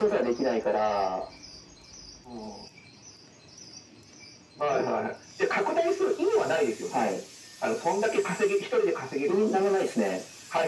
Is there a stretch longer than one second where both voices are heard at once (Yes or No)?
No